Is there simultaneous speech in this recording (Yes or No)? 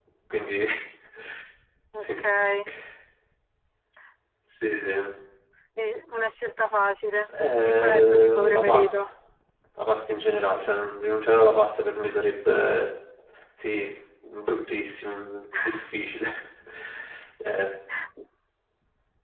Yes